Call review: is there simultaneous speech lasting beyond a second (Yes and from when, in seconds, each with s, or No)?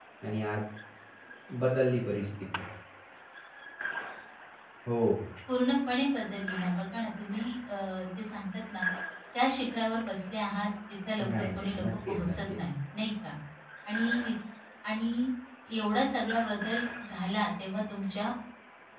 Yes, from 11.2 s